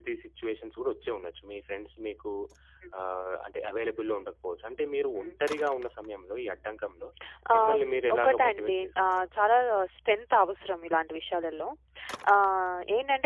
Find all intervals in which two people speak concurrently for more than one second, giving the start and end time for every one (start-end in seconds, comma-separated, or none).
7.6-9.3